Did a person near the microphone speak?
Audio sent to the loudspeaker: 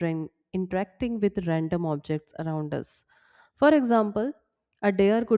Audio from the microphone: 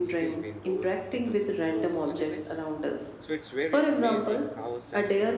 Yes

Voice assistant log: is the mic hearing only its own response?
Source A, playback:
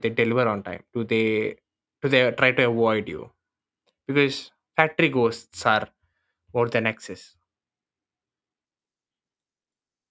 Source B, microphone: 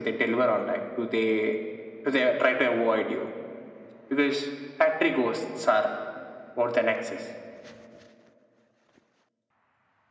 Yes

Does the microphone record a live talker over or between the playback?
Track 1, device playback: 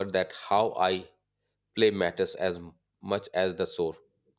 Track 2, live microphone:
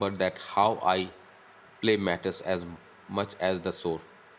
No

